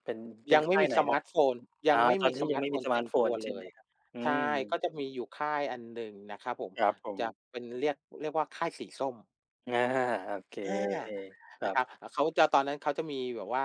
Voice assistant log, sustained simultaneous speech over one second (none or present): present